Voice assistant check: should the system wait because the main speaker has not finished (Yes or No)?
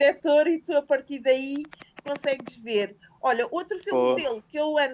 Yes